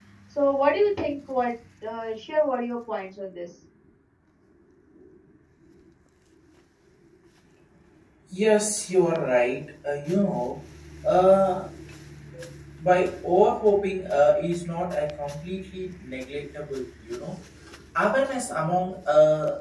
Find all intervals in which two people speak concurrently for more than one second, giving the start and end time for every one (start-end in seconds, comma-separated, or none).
none